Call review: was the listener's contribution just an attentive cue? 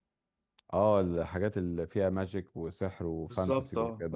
No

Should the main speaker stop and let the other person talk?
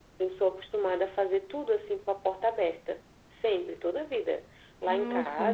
No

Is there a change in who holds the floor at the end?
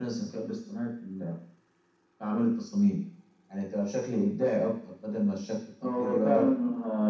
Yes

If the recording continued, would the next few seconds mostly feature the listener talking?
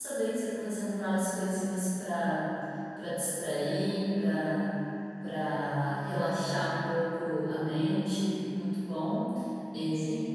No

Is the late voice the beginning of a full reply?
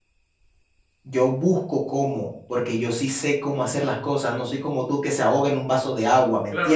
Yes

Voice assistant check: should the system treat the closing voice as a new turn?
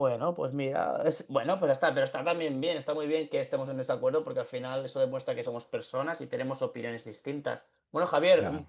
No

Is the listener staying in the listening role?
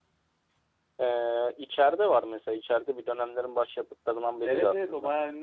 No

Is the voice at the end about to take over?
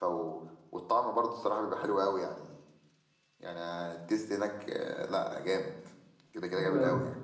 Yes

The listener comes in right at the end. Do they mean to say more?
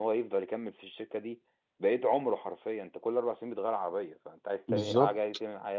No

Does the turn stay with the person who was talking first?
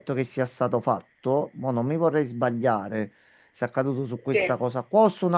Yes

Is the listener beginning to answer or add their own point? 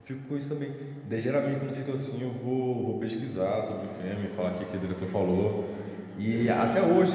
No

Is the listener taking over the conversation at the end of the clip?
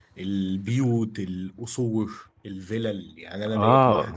No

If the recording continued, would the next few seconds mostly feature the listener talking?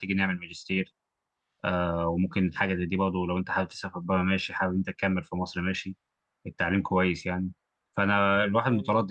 No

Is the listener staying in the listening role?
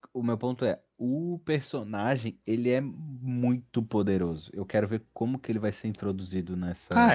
No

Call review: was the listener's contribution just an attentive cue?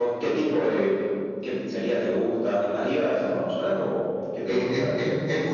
No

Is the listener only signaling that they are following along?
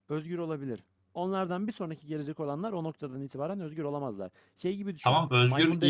No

